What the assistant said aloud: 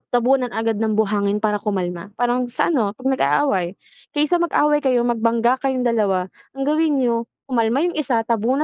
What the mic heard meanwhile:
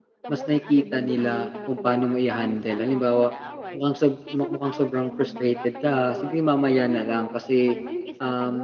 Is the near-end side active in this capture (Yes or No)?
Yes